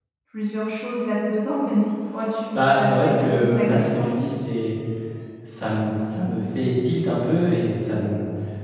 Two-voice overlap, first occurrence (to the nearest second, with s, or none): 3 s